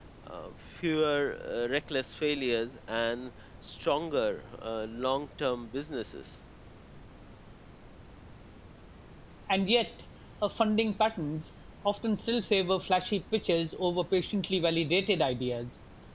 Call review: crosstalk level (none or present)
none